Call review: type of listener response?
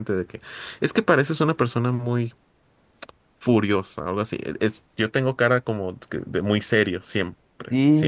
taking over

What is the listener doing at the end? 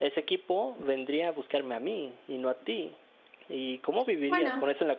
listening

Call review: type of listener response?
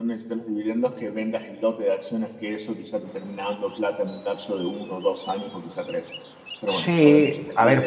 taking over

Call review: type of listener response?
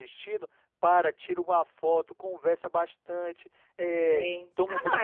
taking over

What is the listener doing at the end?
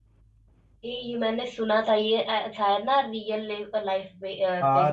taking over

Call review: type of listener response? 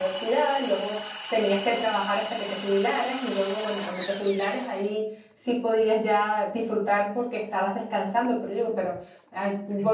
listening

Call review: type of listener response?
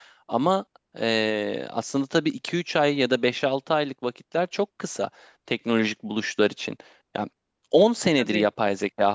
listening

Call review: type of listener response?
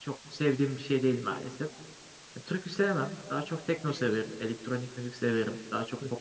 listening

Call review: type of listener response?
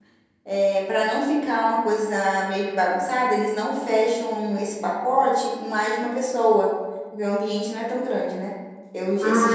taking over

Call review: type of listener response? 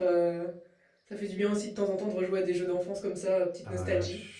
taking over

